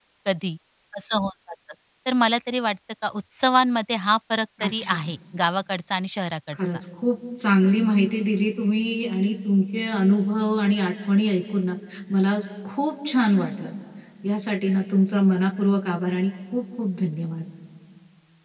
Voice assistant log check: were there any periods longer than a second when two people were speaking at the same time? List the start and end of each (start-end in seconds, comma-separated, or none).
none